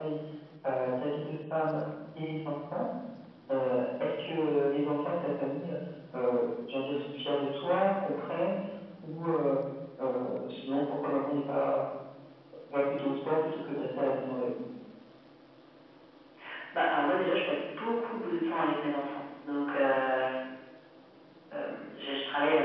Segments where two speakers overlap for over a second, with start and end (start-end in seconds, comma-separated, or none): none